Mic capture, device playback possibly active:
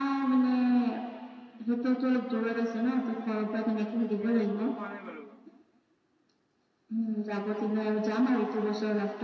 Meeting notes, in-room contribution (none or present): present